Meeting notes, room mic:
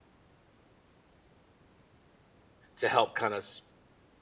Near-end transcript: to help kind of

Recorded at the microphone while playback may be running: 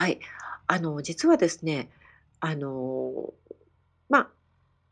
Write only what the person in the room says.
none

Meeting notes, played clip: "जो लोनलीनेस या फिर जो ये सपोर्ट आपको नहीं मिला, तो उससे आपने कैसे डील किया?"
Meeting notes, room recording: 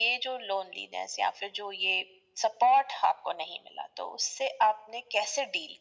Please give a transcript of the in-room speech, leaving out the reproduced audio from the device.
none

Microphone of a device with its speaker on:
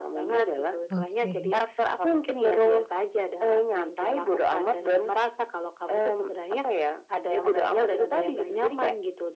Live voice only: Oke.

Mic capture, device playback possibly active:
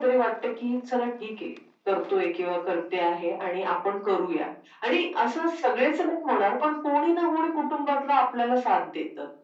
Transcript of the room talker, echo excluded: none

